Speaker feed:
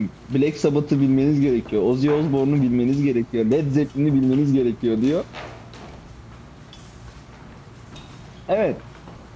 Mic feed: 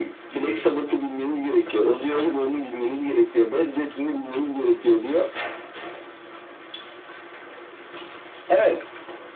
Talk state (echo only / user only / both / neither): echo only